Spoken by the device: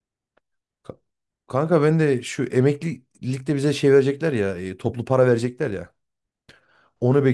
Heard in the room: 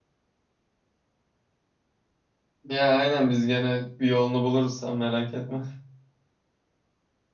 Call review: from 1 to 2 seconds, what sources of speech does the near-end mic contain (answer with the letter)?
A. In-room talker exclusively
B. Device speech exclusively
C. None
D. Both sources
C